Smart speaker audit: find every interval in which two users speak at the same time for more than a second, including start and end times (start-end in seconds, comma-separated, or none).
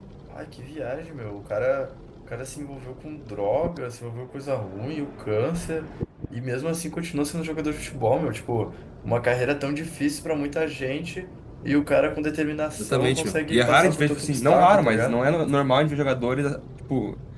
12.8-15.2